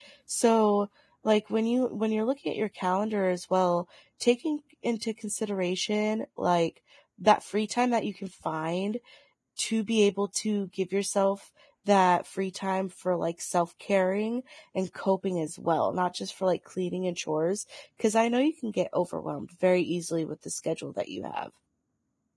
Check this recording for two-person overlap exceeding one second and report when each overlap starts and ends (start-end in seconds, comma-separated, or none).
none